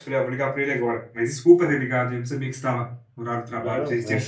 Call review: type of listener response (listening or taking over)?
taking over